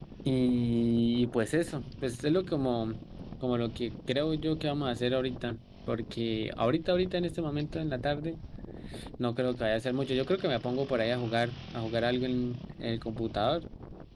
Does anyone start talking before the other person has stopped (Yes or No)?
No